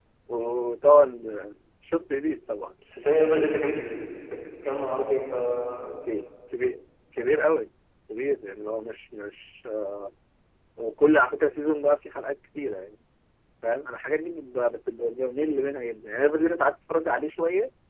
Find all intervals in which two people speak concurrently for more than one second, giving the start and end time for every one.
none

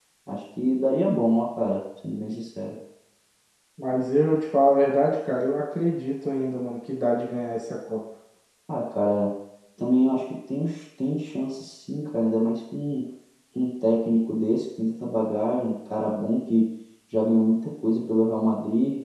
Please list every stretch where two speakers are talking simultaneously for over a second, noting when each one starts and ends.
none

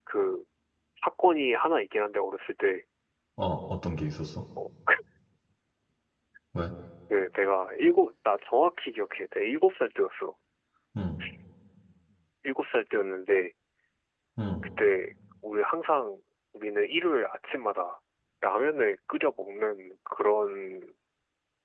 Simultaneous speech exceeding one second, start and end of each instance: none

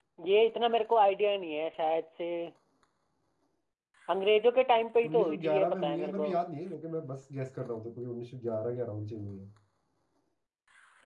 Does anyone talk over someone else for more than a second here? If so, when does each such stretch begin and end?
5.0-6.3

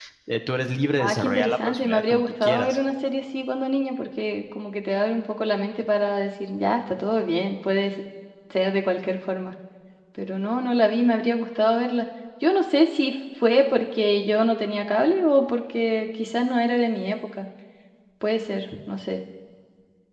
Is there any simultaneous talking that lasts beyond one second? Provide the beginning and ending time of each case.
1.0-2.8

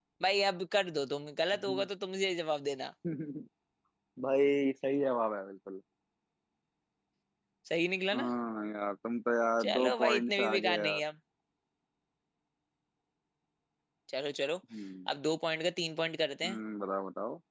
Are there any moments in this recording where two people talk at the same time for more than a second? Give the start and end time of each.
9.6-11.0

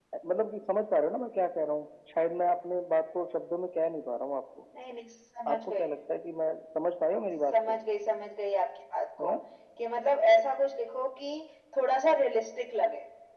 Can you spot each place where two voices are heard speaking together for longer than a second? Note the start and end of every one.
none

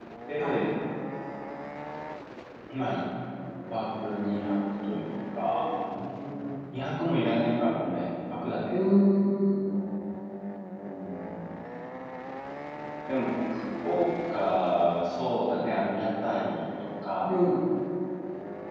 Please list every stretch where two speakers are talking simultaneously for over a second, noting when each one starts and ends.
none

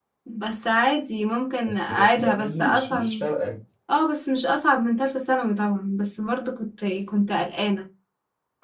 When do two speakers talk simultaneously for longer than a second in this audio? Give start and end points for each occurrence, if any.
1.7-3.2

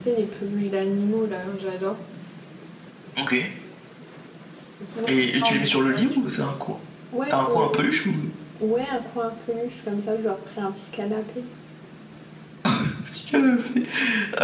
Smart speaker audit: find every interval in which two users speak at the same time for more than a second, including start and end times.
5.1-6.3

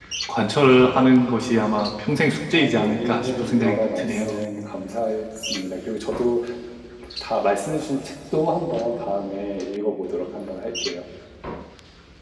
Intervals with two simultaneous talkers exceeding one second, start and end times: 2.5-4.4

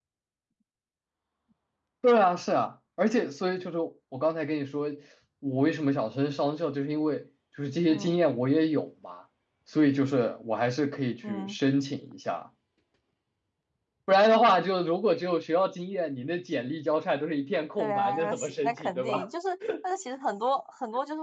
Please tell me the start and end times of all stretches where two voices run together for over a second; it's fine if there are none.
17.8-19.3

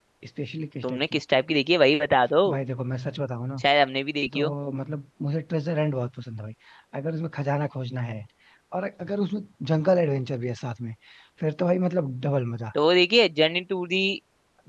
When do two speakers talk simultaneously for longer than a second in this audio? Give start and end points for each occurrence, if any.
none

